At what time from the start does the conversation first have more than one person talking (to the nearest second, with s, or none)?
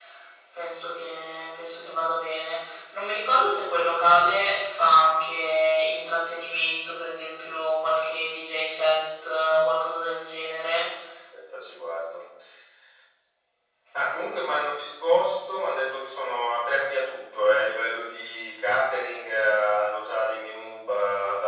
none